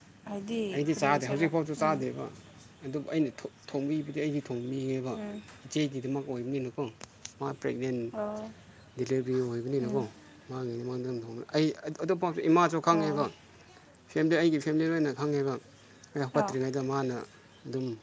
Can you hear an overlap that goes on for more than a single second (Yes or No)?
Yes